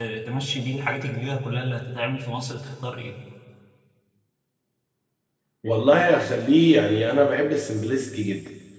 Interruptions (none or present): none